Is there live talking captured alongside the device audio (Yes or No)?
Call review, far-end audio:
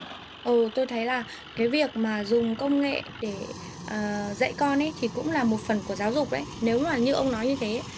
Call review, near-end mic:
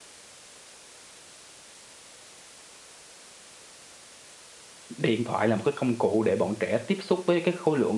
Yes